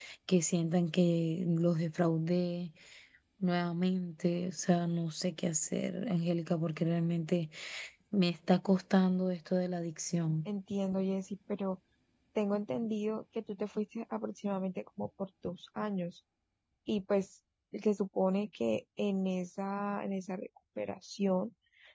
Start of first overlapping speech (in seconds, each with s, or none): none